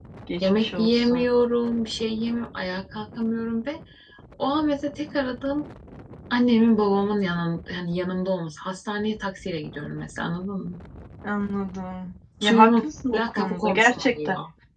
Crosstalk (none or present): present